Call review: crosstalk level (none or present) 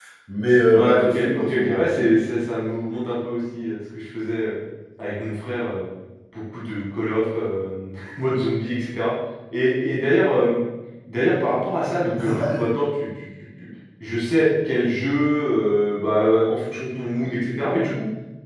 present